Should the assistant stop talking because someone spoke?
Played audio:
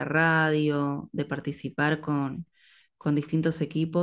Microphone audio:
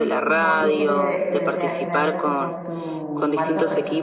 Yes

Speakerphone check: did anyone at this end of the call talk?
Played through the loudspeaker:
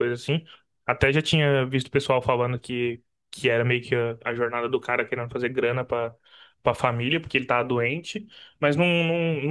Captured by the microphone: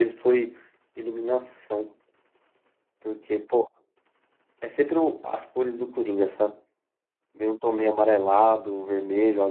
Yes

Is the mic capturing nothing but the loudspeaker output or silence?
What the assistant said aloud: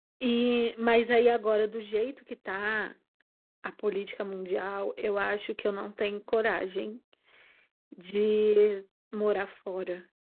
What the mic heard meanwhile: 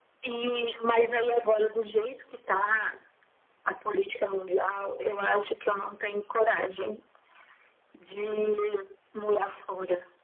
Yes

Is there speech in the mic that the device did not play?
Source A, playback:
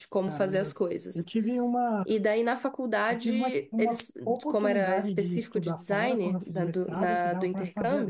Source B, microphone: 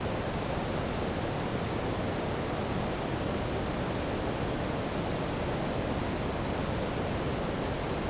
No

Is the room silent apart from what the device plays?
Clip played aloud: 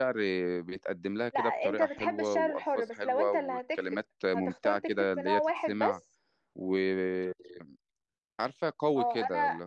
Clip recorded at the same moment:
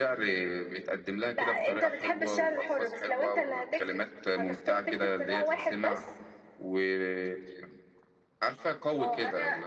Yes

